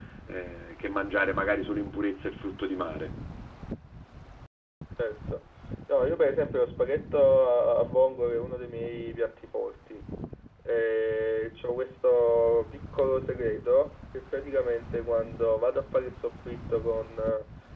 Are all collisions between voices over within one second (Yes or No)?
Yes